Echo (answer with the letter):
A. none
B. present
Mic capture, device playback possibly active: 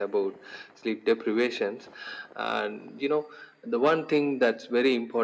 B